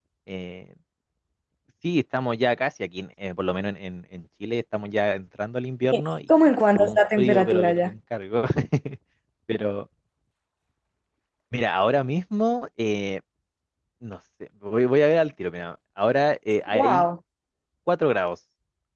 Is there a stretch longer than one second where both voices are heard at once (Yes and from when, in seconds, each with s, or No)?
Yes, from 6.5 s